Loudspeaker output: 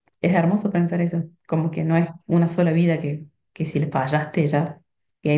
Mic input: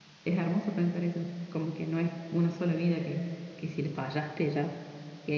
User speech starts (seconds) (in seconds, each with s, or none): none